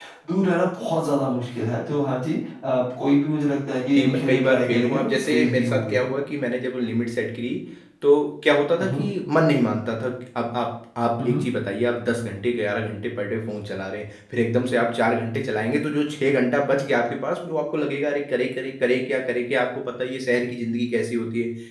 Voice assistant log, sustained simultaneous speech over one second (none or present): present